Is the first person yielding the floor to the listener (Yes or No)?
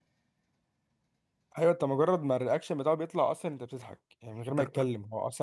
No